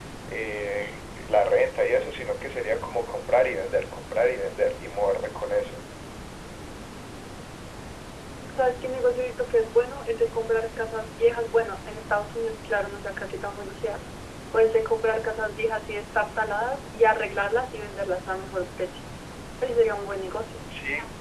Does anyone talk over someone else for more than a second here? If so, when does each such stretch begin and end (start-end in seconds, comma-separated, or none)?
none